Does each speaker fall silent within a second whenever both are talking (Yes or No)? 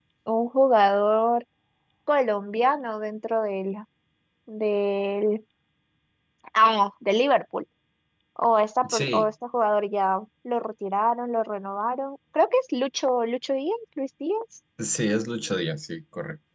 Yes